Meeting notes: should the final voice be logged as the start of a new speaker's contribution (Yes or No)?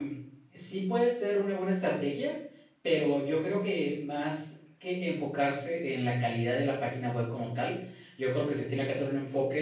No